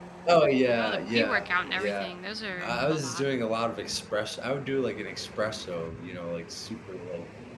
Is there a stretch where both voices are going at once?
Yes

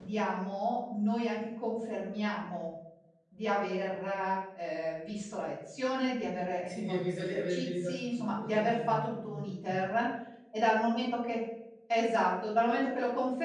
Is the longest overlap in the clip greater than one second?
Yes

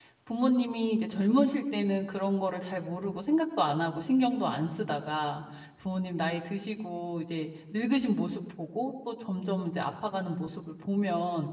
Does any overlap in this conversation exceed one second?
No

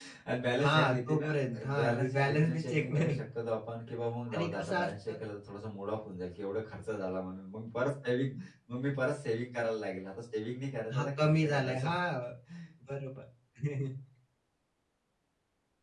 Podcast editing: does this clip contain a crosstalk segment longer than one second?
Yes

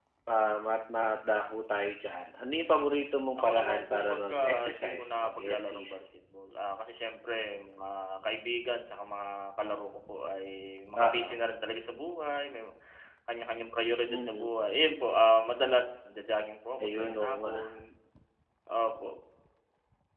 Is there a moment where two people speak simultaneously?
Yes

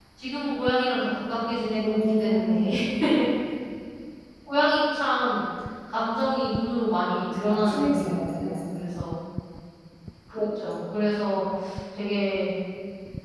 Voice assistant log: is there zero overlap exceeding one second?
No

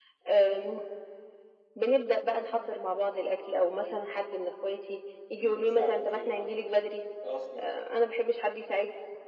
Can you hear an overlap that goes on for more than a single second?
Yes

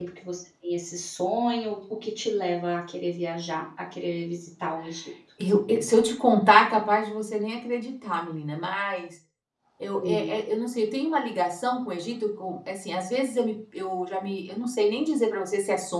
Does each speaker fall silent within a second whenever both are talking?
Yes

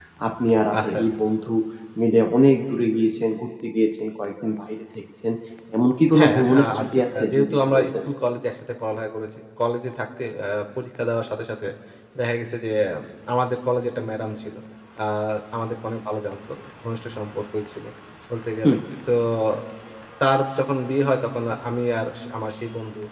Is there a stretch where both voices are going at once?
Yes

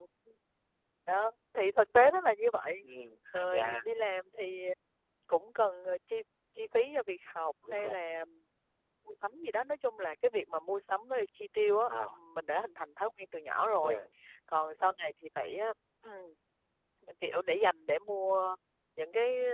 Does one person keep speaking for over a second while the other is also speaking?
No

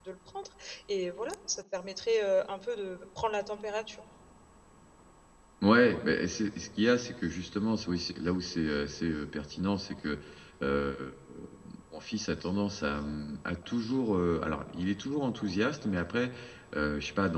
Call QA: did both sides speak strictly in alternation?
Yes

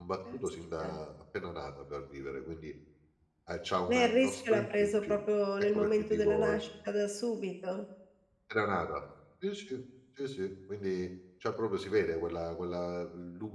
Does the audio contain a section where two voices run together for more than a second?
Yes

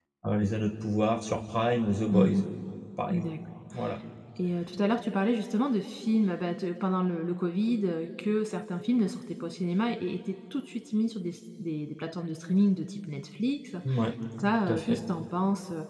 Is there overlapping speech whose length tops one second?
No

